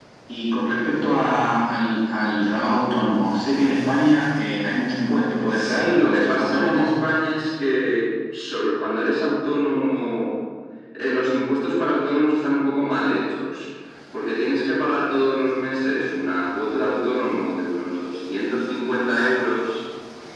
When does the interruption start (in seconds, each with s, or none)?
5.5 s